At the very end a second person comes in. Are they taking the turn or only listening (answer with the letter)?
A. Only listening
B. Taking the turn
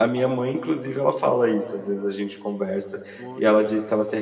A